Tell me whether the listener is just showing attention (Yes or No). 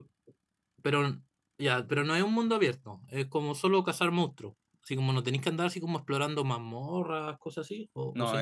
No